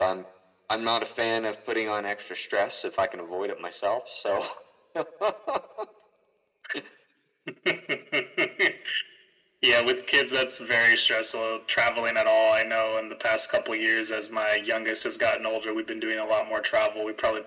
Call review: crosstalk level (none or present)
none